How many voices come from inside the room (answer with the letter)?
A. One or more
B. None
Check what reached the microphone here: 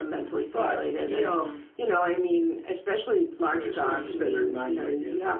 B